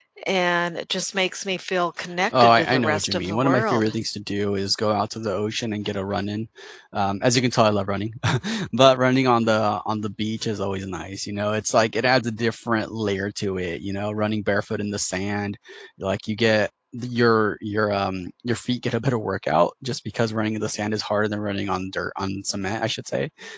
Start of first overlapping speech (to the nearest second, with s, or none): 2 s